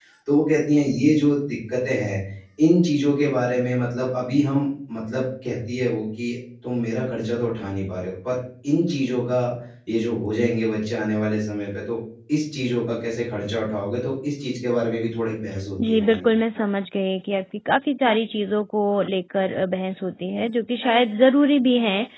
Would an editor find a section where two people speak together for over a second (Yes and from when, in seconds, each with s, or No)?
No